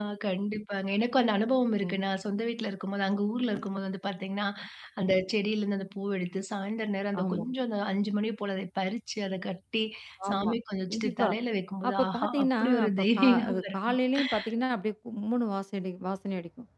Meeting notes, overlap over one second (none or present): present